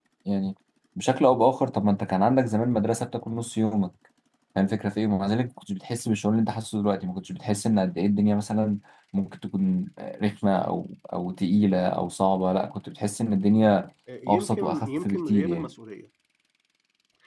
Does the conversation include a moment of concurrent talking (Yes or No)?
Yes